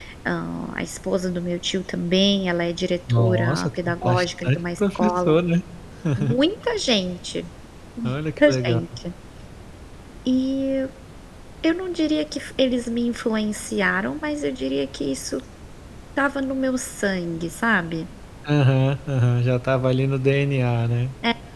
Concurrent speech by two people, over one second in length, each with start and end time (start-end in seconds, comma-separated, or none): 3.1-5.3